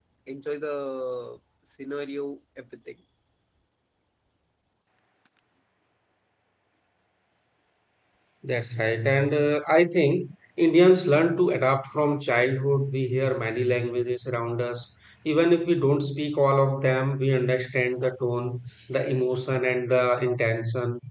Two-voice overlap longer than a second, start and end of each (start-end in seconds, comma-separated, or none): none